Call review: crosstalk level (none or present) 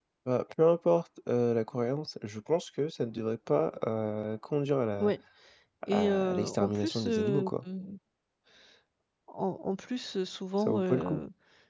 present